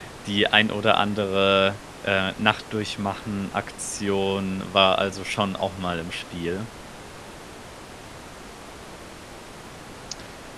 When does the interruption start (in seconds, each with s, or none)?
none